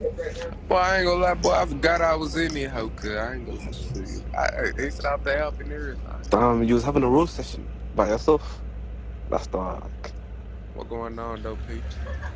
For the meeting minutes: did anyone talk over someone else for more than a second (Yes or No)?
No